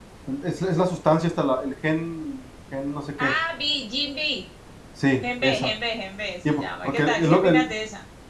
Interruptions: present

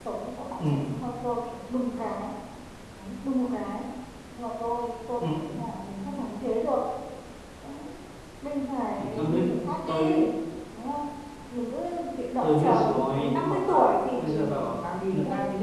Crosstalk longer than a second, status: present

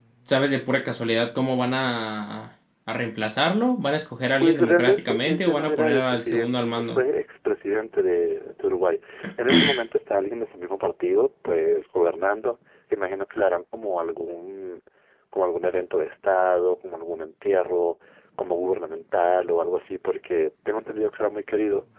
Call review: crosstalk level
present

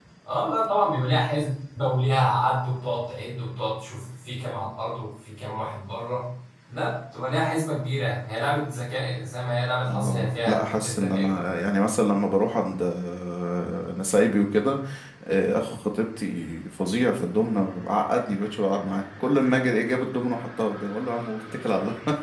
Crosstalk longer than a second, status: present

